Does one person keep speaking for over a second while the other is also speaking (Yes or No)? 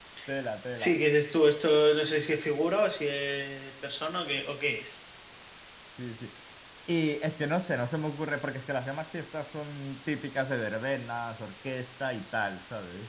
No